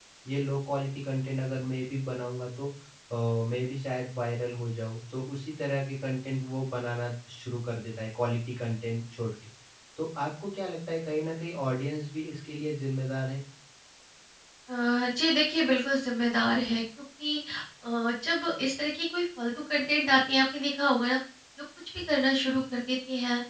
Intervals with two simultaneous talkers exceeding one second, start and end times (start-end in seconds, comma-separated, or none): none